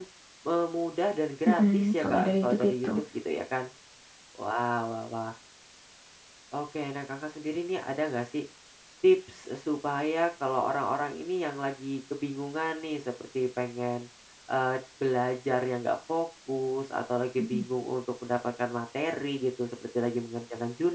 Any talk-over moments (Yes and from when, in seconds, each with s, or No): Yes, from 1.5 s